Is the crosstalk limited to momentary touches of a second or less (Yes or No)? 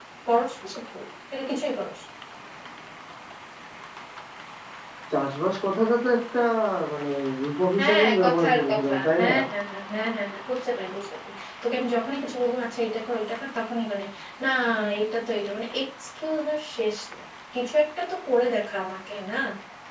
No